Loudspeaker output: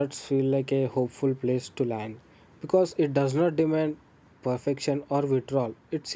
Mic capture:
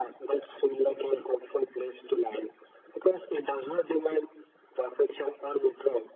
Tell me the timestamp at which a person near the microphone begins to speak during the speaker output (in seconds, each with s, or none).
none